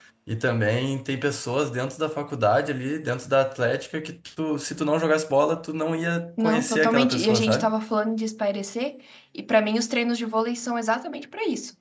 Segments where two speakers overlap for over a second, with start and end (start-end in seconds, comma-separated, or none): 6.4-7.7